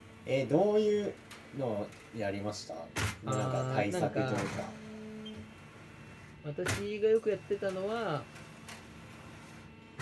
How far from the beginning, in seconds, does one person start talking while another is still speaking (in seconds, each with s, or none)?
3.3 s